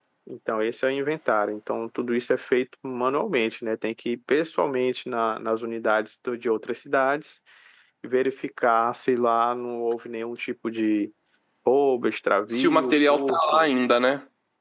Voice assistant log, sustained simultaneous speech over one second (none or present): present